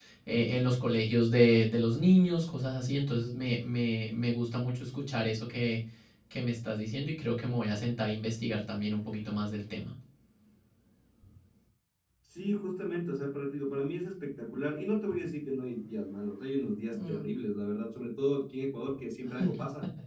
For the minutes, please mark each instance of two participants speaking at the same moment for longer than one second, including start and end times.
none

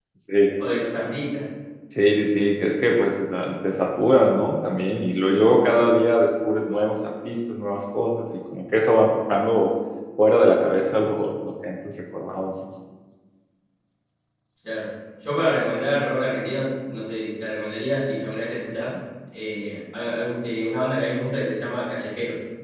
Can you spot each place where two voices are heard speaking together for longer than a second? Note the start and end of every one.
none

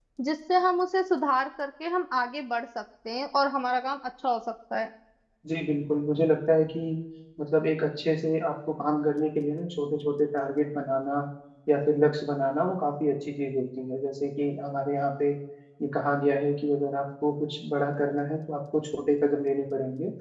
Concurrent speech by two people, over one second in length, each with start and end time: none

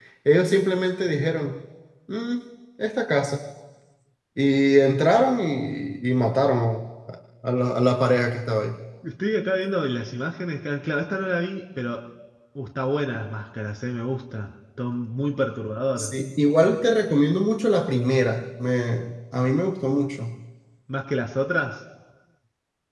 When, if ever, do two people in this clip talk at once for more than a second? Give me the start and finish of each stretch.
none

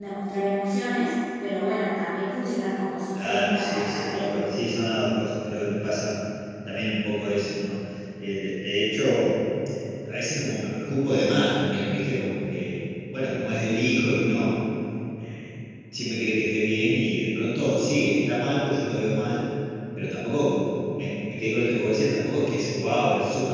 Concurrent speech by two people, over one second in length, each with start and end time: 3.2-4.4

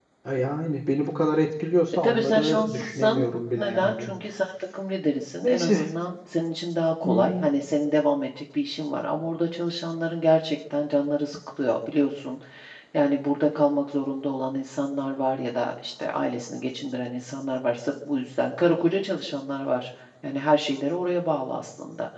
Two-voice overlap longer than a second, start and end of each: 2.0-4.1

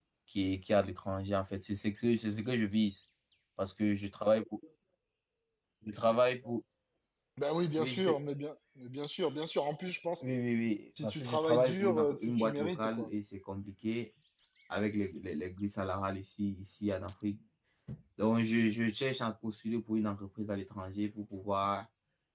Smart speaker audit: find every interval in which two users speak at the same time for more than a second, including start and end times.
11.0-13.1

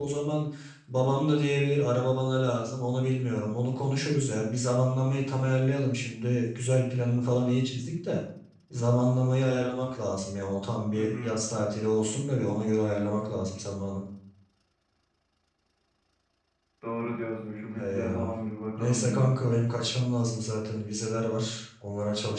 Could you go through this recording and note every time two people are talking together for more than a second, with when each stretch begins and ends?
none

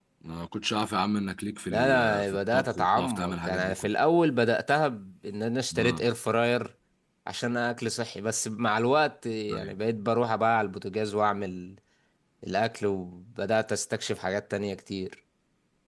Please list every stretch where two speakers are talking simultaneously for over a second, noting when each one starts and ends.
1.7-3.9

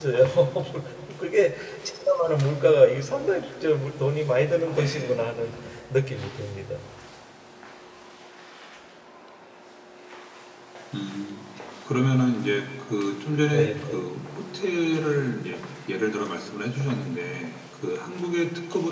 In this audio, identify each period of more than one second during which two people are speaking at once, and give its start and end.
none

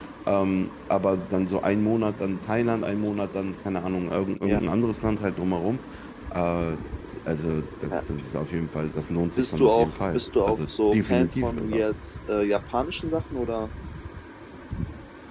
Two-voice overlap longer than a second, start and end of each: 9.4-11.6

